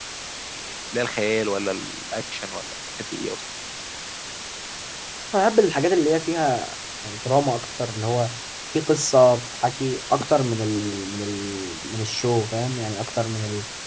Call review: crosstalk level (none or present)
none